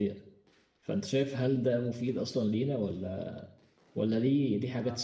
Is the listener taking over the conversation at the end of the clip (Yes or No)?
Yes